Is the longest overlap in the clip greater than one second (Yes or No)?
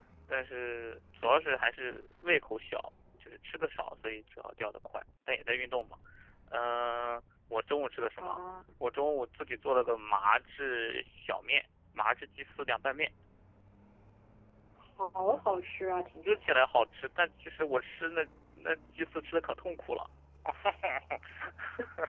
No